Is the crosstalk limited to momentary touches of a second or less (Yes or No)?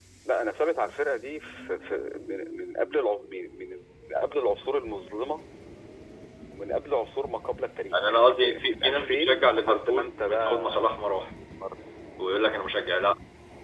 No